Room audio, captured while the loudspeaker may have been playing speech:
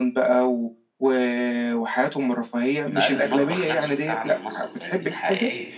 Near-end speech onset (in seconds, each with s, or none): 2.9 s